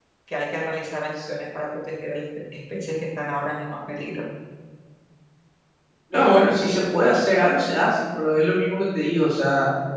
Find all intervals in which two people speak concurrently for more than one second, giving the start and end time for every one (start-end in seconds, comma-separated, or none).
none